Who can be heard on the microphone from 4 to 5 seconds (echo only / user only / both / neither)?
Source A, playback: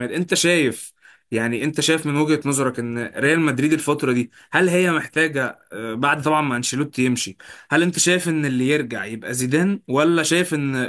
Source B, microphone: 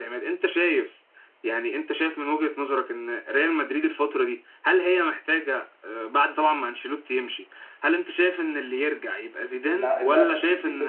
echo only